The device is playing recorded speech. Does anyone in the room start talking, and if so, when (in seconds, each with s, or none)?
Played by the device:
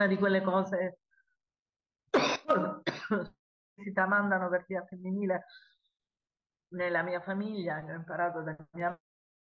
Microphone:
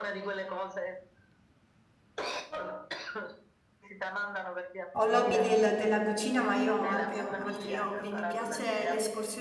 4.9 s